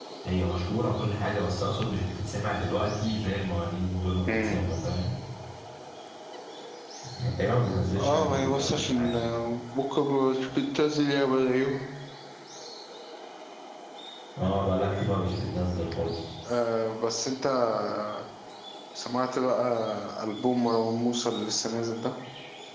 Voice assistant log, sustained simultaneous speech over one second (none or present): present